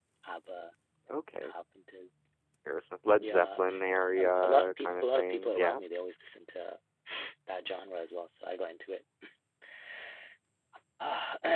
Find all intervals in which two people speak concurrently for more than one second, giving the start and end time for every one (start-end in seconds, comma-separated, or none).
4.2-5.8